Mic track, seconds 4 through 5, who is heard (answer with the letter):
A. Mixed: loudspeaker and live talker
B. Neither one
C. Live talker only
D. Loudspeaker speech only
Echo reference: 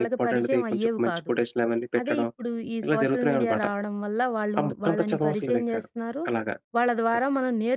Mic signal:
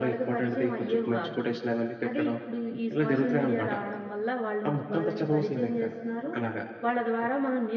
D